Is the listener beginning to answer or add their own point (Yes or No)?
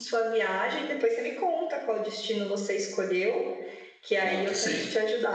No